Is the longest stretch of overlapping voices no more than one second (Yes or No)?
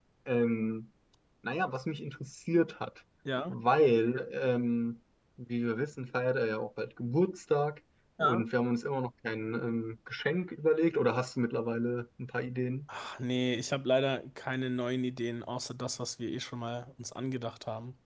Yes